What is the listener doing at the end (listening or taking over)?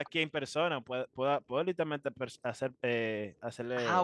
taking over